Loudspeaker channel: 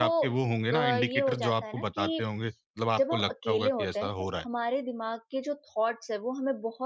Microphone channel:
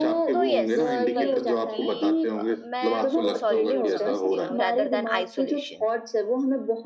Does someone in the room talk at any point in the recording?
Yes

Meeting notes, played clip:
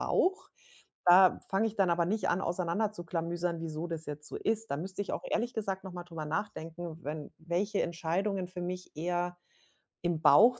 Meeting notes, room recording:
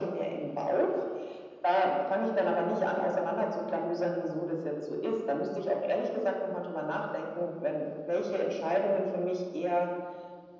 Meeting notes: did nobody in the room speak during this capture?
Yes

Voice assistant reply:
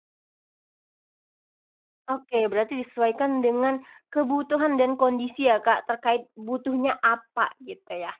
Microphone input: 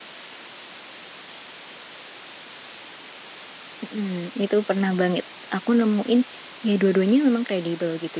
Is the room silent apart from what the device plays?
No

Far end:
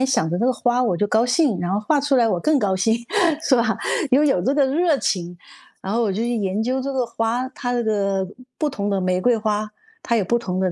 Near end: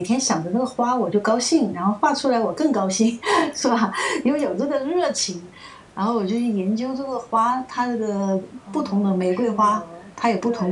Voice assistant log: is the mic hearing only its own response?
No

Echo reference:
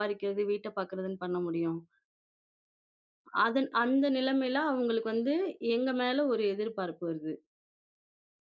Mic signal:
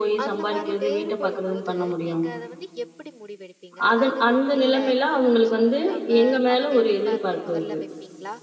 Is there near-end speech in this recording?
Yes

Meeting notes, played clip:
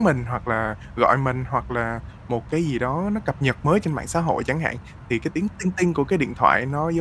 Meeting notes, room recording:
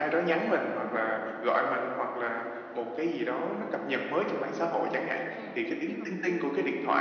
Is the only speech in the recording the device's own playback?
No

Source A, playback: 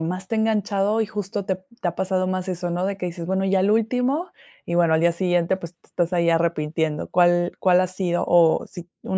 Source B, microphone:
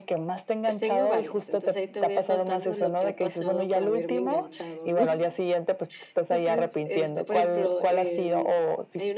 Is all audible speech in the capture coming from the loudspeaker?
No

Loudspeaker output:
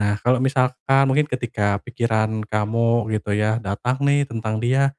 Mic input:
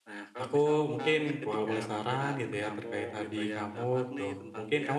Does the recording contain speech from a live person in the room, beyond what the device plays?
Yes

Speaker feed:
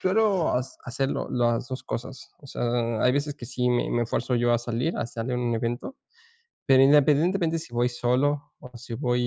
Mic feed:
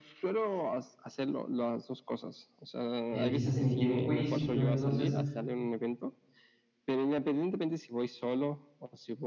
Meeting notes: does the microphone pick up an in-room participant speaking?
Yes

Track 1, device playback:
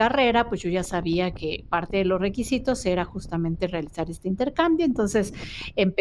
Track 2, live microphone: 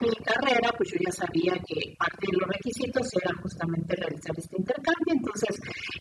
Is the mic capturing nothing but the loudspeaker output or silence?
Yes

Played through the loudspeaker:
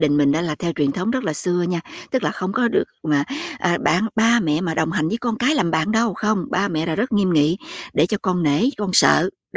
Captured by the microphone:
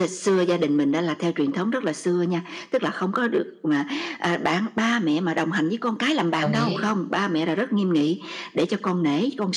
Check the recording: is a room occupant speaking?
Yes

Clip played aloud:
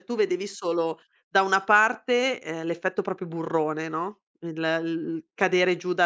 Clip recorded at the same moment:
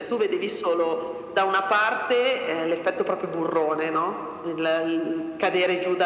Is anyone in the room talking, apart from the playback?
No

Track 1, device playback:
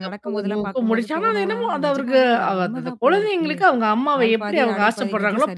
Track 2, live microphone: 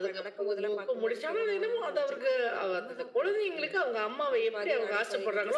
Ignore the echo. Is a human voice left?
No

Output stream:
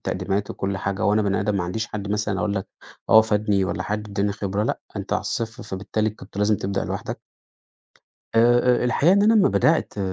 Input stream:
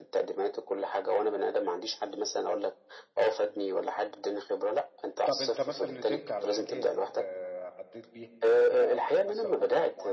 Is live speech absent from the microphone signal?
No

